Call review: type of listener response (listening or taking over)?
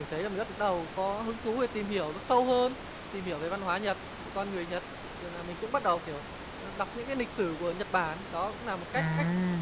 listening